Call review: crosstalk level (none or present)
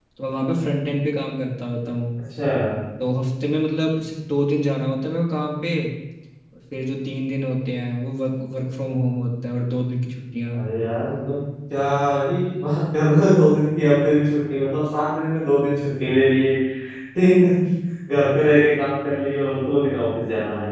none